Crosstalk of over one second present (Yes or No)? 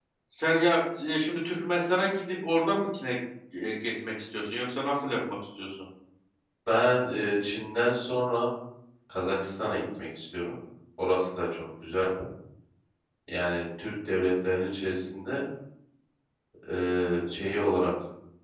No